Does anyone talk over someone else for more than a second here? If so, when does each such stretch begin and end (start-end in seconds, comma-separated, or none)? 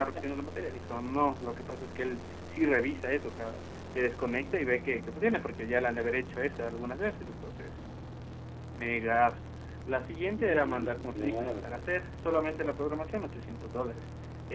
10.3-11.8